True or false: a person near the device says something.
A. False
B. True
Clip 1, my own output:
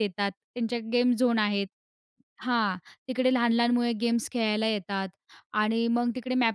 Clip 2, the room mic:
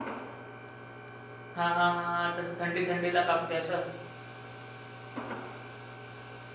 B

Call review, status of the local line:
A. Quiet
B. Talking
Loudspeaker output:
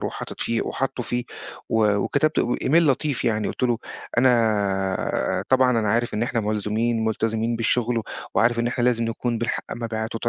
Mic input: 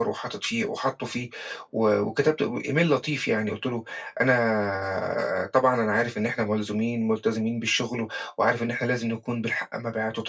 A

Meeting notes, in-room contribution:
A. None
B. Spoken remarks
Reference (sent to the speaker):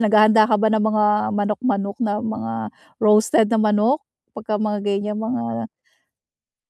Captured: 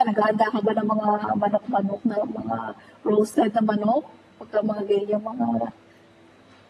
A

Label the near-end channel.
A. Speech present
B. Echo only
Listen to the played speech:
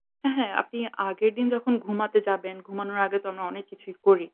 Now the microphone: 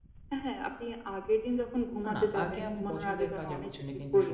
A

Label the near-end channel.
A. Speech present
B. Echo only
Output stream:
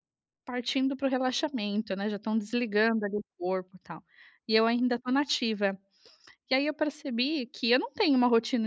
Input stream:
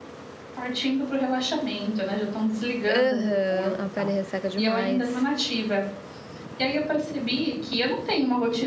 A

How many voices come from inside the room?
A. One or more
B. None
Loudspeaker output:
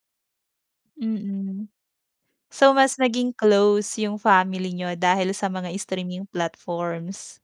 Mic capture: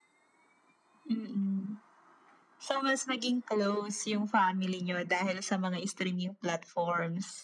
B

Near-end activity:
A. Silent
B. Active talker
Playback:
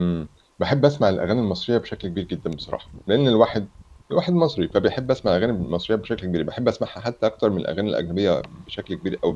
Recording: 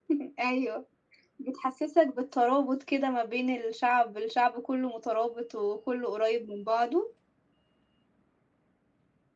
B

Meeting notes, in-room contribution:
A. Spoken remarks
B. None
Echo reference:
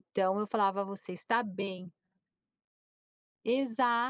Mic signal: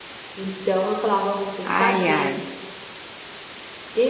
A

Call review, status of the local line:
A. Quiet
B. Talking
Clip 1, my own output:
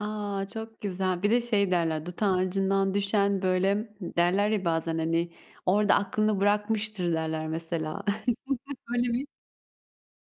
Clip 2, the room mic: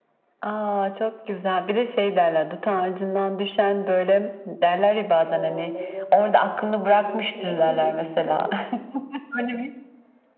B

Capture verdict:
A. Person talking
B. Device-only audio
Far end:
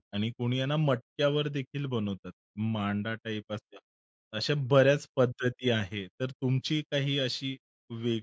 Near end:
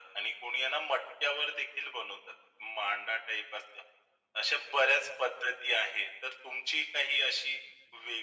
B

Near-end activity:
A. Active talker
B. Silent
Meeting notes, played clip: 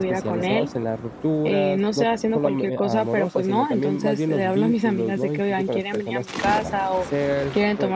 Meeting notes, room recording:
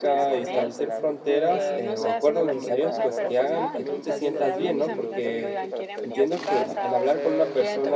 A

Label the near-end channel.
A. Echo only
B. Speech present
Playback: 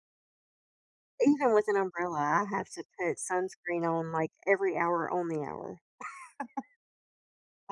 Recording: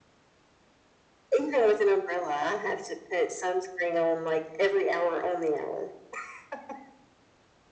A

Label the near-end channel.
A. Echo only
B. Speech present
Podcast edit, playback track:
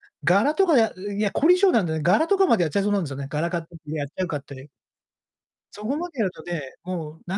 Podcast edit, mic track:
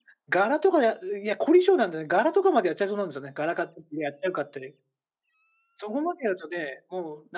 A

